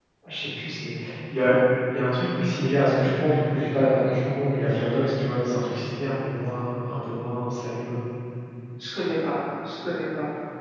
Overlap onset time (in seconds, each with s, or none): none